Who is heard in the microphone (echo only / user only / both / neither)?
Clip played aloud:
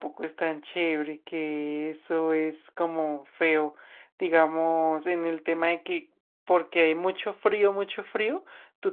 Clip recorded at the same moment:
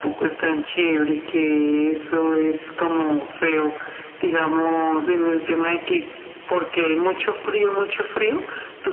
echo only